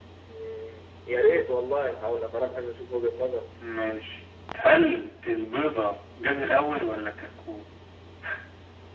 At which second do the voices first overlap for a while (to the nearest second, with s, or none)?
none